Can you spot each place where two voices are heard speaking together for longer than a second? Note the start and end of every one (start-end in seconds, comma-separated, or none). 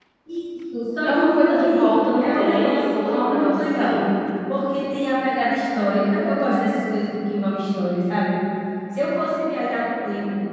1.0-3.9